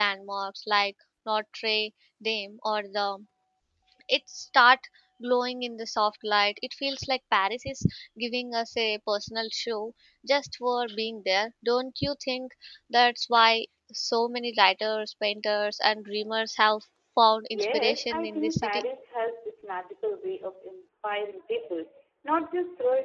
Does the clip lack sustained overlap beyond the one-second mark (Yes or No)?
No